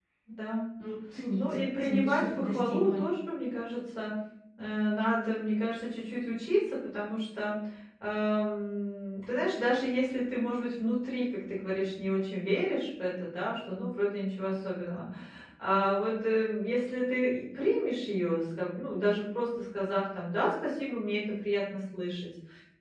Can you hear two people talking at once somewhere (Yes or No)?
Yes